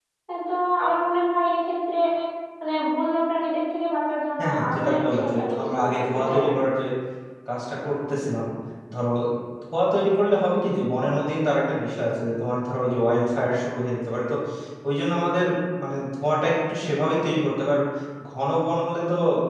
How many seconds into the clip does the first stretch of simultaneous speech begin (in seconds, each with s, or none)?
4.4 s